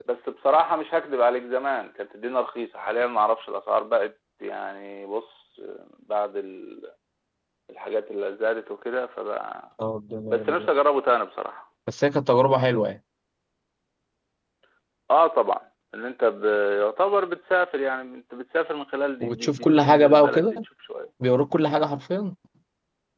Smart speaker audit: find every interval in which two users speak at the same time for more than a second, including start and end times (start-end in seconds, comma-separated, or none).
19.2-20.5